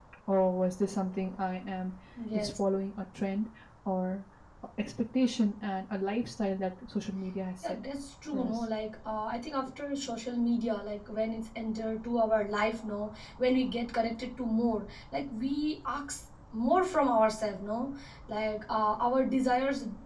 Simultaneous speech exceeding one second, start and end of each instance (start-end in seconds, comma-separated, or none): none